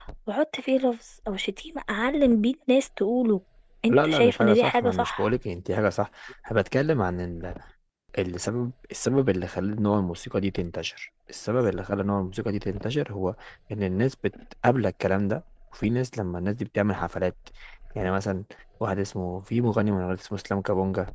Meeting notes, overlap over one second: present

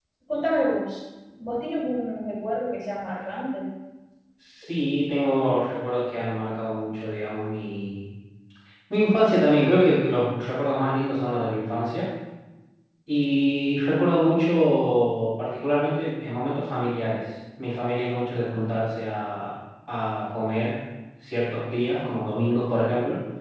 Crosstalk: none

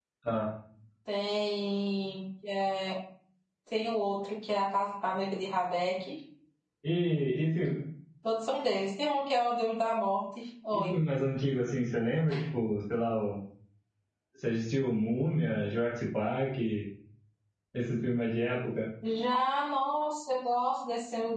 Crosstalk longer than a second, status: none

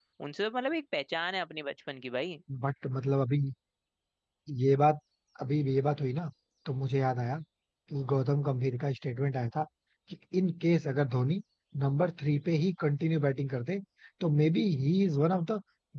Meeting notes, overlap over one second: none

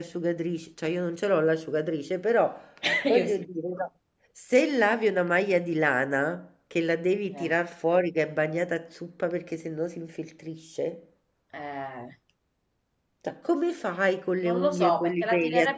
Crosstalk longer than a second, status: present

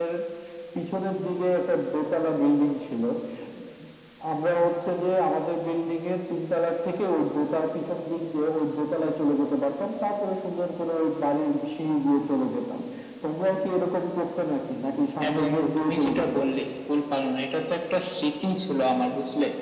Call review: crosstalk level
present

